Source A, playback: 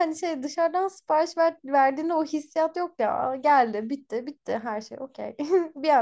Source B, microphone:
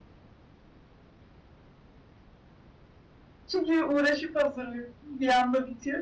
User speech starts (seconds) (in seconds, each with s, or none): 3.5 s